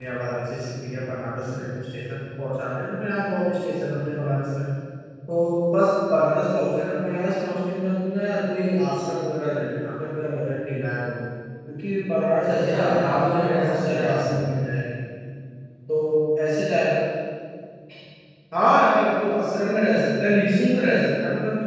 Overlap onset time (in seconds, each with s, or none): 12.5 s